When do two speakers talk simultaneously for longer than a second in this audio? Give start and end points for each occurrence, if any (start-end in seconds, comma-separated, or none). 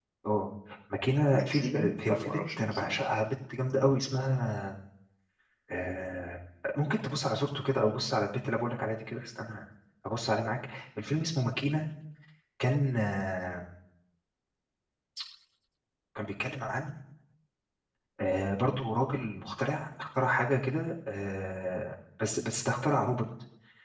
1.3-3.0